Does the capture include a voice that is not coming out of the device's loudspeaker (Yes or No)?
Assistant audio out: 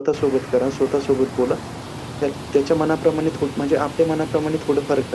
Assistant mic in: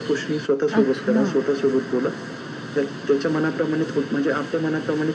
Yes